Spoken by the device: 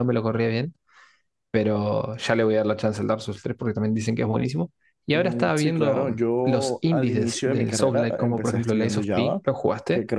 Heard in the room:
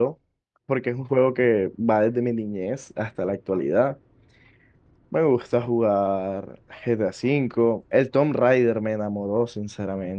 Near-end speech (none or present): present